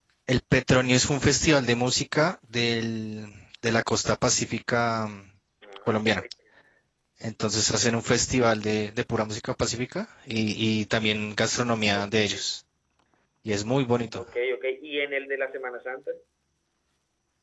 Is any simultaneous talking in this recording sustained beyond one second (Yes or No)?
No